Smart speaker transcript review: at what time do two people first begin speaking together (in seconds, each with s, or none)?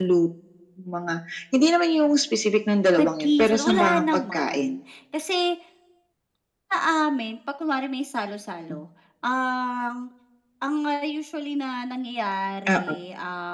3.0 s